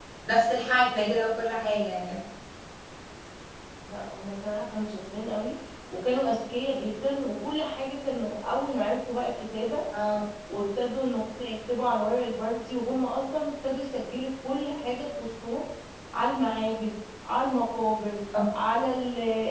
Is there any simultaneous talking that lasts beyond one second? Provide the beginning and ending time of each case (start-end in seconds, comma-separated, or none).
none